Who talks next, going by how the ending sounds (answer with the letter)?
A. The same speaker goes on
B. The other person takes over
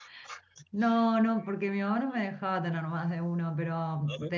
A